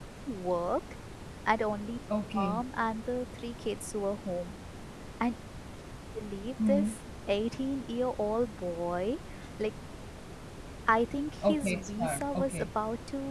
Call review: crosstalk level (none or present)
present